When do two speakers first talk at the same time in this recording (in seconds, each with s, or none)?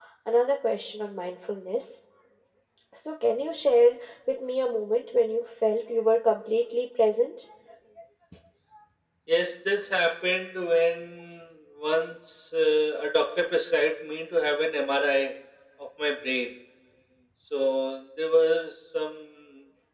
none